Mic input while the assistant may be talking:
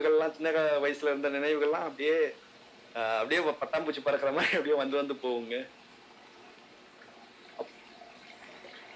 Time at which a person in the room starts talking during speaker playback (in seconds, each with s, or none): none